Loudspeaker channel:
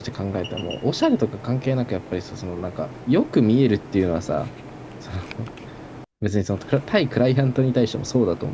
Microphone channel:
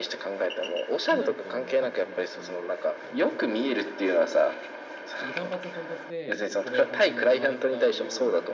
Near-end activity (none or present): present